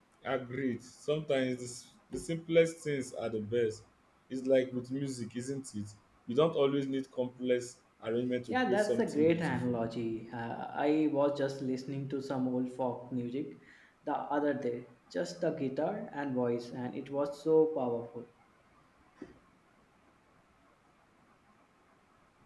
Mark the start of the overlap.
8 s

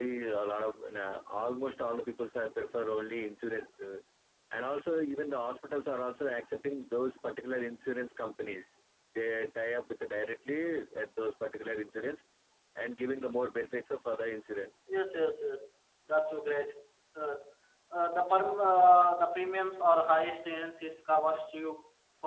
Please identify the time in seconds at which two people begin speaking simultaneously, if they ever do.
none

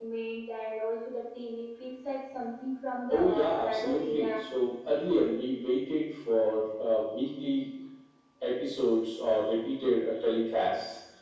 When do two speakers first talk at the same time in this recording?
3 s

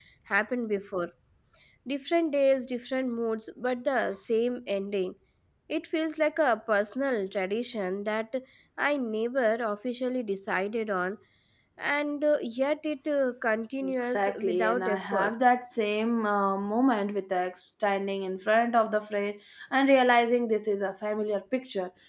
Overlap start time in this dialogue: 14 s

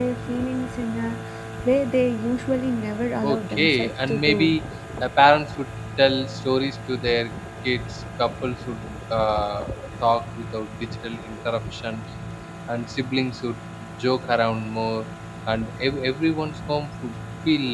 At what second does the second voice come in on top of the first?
3 s

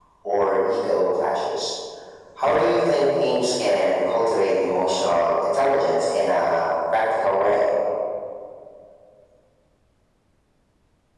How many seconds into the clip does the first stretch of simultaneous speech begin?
none

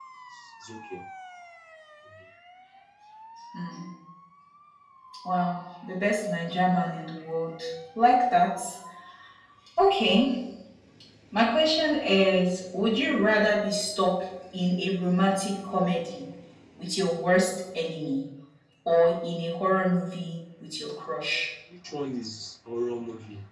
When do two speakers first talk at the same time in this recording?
none

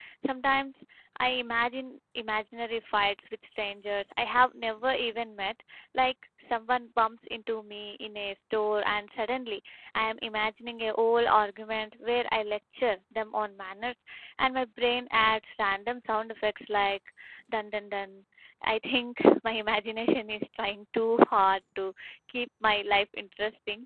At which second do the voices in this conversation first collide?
none

